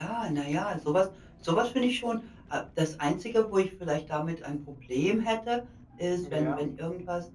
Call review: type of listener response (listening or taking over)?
listening